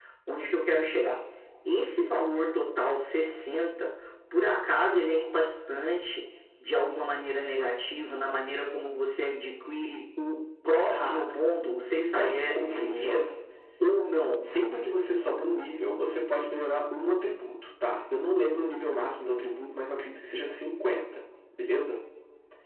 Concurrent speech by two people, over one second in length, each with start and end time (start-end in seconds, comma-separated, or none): 11.9-13.2